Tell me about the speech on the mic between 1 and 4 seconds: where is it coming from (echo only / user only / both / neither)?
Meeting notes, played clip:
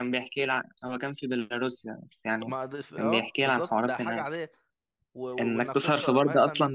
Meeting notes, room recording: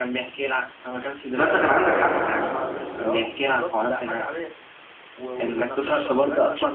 both